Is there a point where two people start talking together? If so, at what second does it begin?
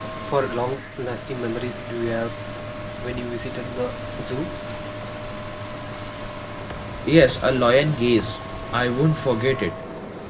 none

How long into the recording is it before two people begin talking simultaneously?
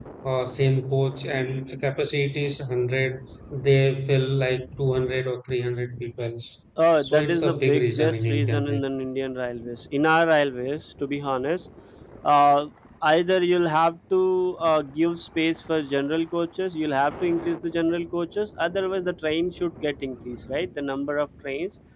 7 s

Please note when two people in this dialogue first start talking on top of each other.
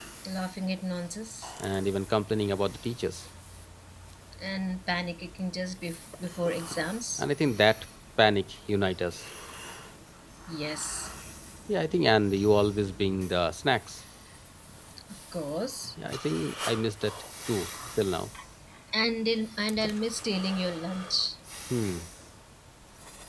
none

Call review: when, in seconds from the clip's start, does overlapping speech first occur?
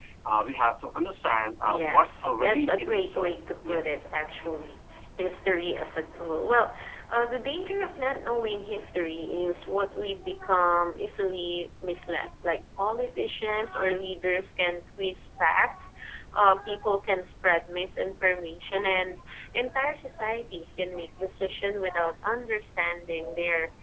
2 s

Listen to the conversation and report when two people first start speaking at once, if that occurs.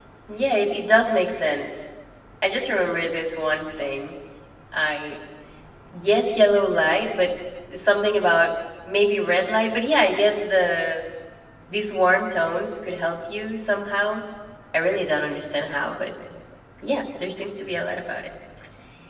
none

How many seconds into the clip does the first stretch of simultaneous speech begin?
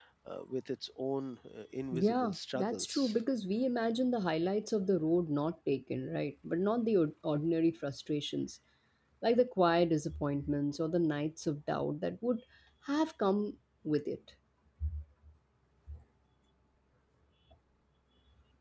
2 s

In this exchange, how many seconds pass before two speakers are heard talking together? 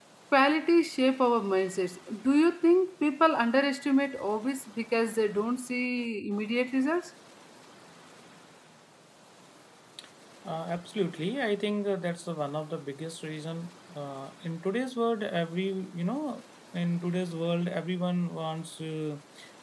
none

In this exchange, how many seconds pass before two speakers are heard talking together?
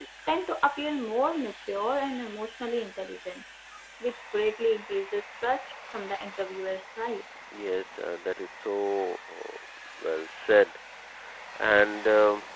none

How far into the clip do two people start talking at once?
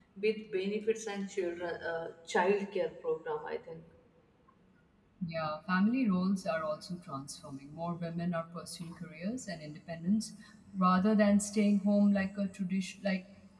none

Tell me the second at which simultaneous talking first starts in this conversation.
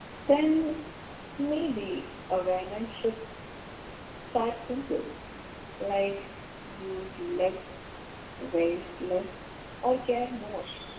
none

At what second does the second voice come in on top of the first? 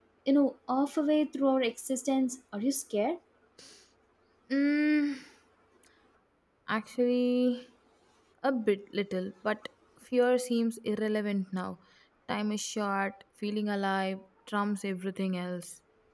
none

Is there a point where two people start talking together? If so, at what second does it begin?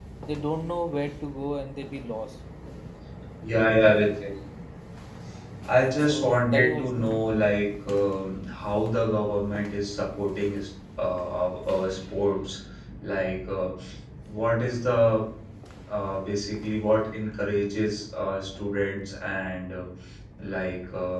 6 s

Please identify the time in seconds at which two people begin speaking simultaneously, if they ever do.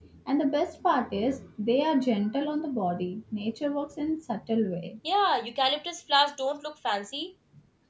none

